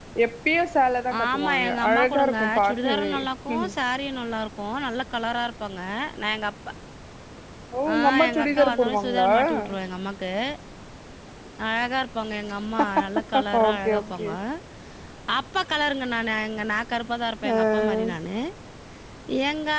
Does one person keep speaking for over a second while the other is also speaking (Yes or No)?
Yes